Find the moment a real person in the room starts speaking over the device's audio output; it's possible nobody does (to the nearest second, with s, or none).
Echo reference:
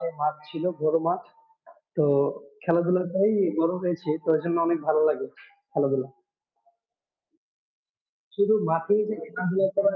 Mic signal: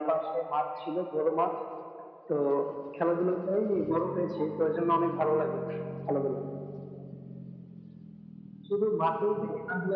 none